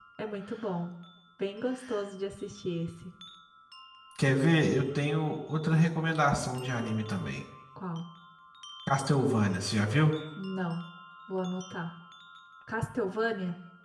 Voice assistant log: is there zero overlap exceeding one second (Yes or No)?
Yes